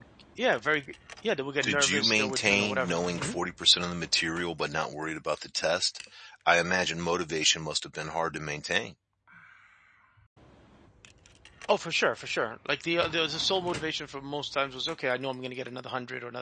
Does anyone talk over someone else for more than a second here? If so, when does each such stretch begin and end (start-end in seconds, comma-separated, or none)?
1.6-3.3